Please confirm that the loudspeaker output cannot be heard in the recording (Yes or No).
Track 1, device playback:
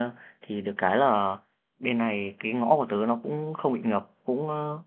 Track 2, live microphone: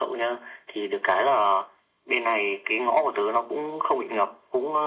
No